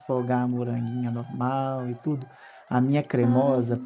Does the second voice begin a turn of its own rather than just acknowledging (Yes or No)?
No